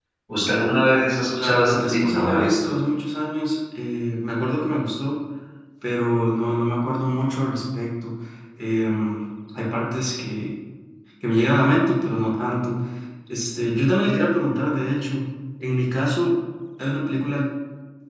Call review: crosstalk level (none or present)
present